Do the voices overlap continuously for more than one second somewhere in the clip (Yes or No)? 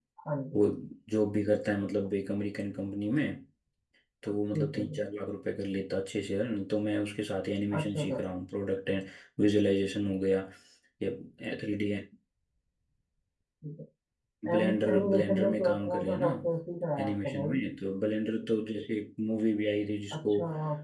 Yes